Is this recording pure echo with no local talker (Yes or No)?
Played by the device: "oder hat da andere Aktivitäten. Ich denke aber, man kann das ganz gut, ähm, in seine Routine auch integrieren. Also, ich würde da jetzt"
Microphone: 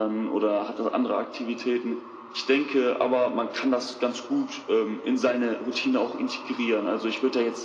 Yes